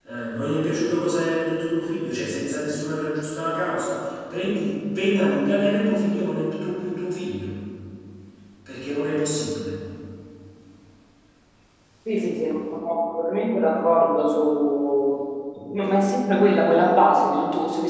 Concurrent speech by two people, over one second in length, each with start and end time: none

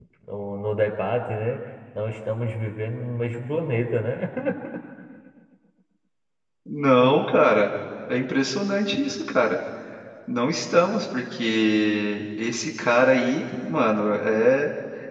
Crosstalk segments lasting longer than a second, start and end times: none

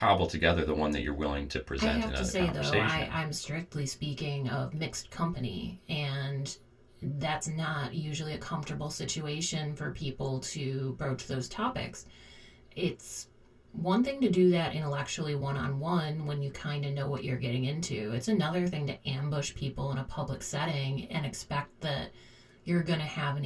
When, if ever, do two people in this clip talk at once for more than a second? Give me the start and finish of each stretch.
1.8-3.2

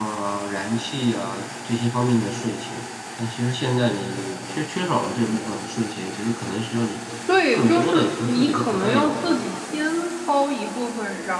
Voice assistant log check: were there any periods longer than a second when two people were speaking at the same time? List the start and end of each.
7.5-9.3

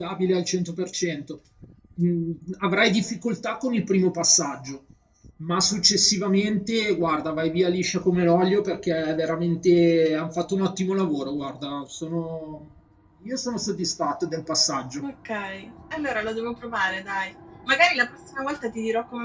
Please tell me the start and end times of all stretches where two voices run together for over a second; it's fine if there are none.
none

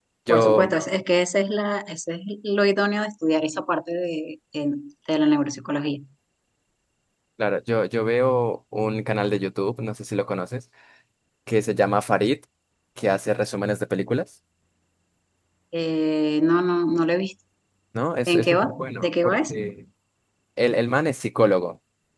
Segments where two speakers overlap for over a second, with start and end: 18.3-19.5

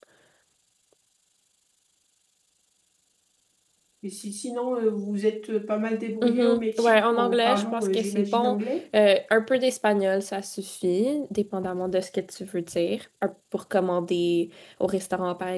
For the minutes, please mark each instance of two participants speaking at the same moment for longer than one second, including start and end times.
6.2-8.6

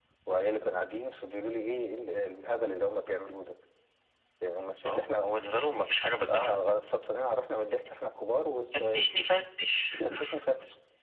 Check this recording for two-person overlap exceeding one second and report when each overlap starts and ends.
none

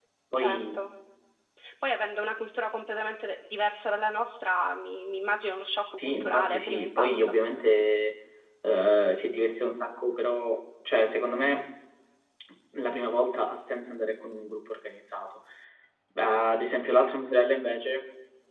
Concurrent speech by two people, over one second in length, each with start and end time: 6.0-7.3

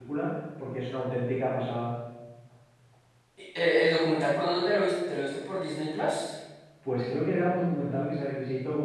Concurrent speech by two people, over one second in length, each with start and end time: none

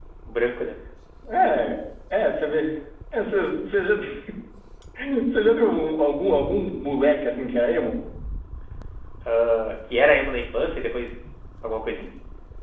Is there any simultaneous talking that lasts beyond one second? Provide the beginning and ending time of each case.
none

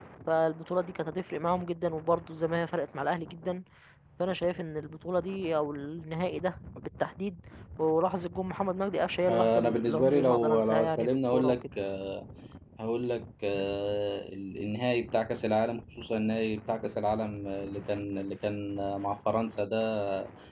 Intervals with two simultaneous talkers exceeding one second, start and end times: 9.3-11.6

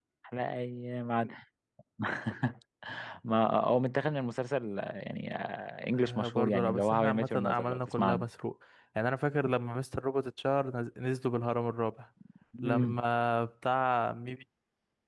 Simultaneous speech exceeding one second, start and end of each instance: 5.9-8.3

